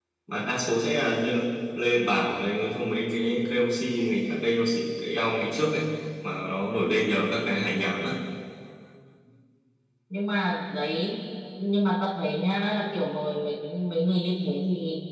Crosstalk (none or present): none